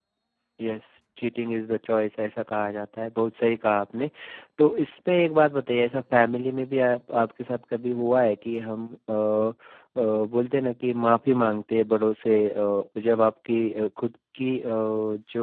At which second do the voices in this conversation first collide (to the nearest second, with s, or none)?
none